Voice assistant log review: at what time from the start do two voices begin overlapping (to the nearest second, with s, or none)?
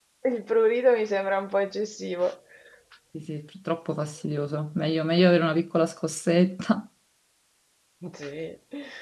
none